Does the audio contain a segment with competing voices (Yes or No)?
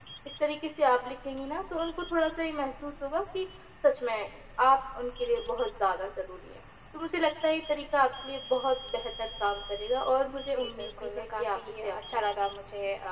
Yes